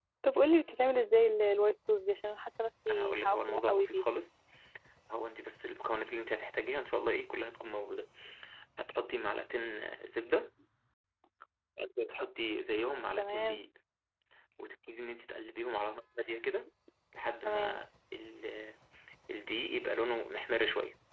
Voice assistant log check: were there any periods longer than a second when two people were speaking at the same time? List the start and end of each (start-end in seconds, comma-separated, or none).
2.9-4.2